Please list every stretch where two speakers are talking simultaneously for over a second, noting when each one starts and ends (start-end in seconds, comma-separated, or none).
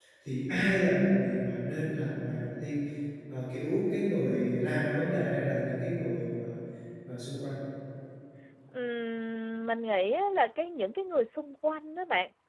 none